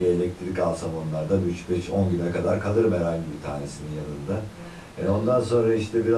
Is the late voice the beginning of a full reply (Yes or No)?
No